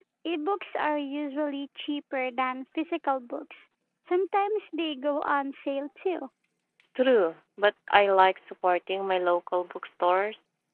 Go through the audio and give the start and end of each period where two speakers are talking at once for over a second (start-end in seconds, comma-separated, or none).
none